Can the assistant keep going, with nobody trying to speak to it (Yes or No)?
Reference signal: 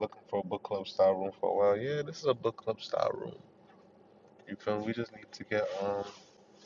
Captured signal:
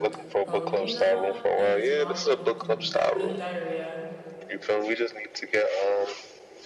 No